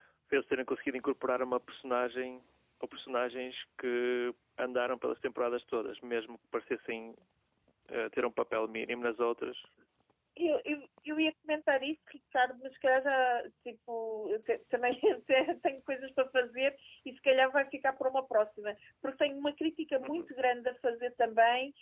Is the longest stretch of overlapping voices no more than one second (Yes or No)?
Yes